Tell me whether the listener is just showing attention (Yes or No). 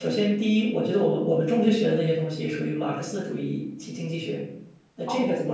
Yes